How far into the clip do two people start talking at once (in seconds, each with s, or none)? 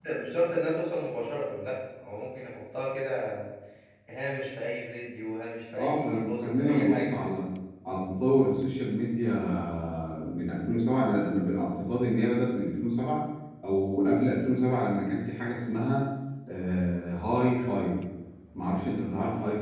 5.8 s